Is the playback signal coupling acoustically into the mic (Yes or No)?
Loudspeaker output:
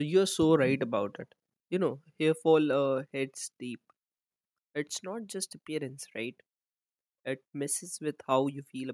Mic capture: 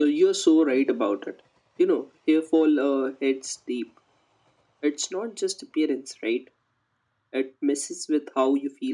Yes